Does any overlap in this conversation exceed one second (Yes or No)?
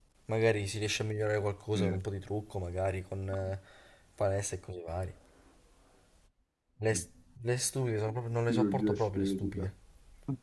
Yes